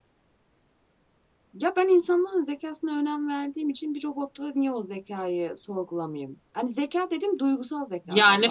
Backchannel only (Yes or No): No